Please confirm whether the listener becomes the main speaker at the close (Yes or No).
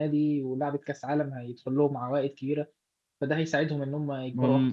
Yes